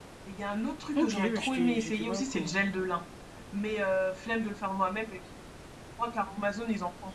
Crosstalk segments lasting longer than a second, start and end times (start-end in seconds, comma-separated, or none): 0.9-2.5